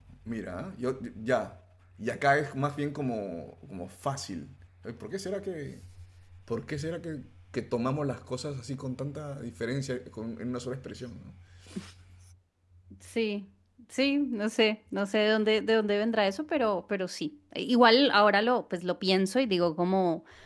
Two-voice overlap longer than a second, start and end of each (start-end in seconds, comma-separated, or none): none